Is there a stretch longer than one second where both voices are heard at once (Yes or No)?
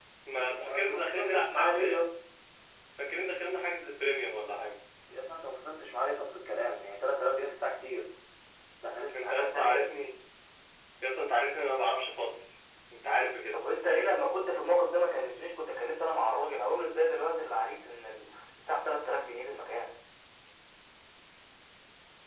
Yes